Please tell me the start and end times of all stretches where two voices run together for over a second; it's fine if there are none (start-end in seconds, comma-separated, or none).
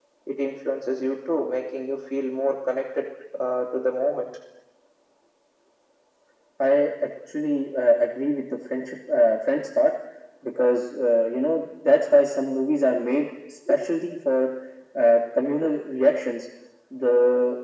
none